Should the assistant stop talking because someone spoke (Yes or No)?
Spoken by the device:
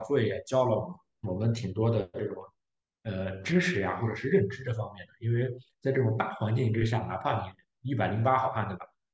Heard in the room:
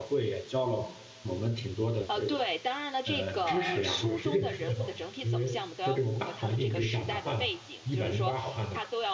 Yes